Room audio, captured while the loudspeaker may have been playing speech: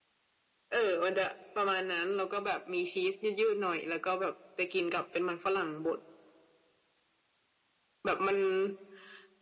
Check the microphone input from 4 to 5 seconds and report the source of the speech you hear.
echo only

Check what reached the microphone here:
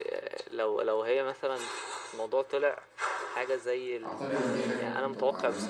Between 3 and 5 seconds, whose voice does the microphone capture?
both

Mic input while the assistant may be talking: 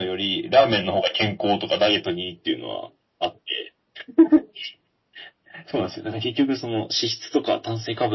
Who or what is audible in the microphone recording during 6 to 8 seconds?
echo only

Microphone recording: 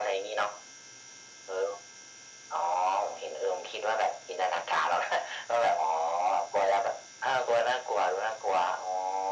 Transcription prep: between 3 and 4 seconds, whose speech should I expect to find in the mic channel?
echo only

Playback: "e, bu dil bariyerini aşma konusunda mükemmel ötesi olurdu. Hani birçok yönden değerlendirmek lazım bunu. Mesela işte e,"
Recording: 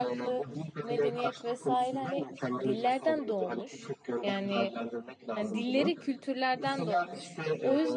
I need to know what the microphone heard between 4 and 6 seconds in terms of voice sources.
both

